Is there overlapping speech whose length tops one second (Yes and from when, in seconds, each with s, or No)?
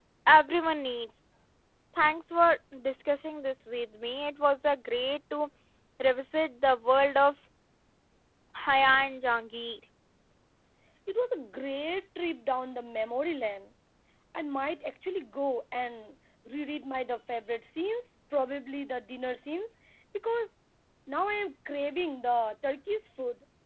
No